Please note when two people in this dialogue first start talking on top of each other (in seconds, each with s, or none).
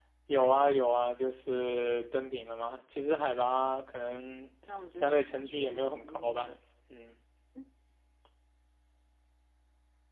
5.0 s